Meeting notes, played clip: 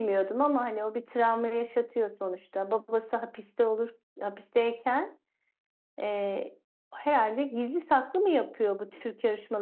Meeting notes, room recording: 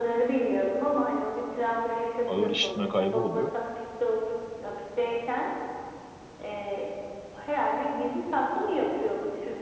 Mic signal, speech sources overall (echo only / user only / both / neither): both